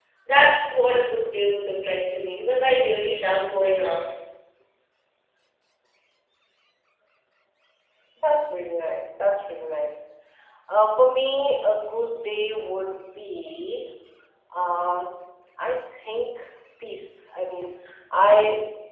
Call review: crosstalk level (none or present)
none